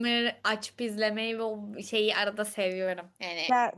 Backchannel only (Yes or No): Yes